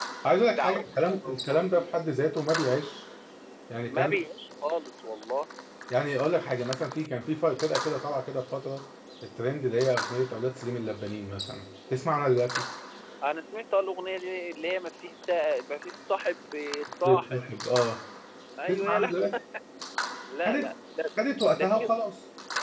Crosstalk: present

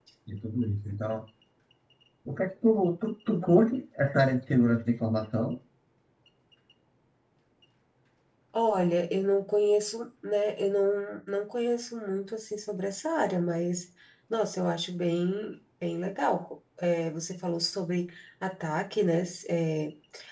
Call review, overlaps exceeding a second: none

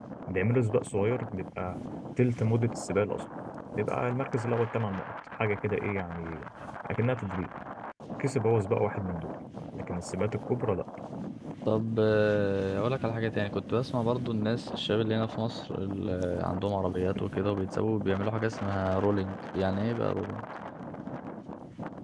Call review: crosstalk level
none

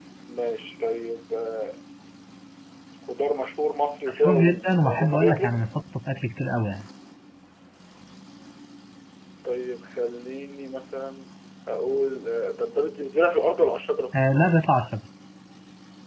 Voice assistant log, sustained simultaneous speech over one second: present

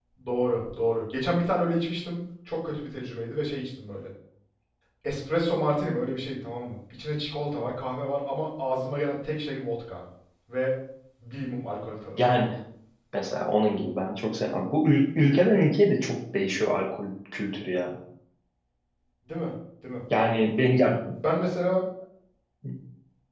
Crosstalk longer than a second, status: none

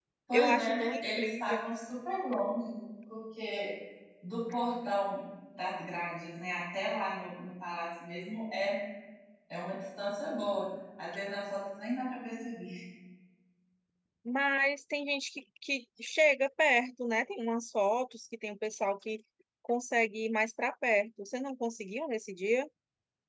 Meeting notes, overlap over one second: present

